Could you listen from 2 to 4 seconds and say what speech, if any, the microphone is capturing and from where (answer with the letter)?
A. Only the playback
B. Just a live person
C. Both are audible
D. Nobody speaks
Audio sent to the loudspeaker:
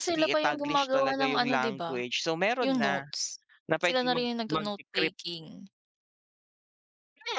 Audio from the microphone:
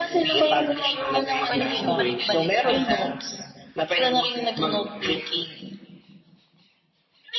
C